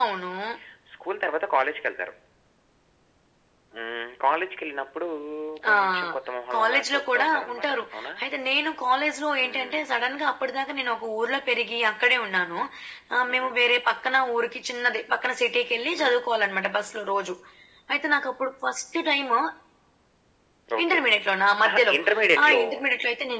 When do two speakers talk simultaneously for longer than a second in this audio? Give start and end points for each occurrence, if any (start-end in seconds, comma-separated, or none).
6.5-7.8